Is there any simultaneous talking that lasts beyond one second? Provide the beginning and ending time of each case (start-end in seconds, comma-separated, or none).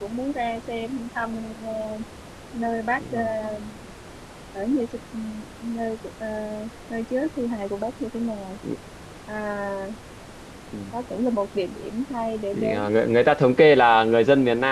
none